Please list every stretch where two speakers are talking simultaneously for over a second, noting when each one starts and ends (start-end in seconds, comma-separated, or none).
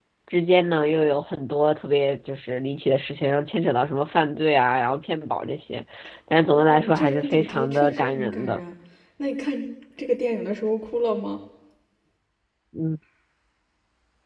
6.5-8.6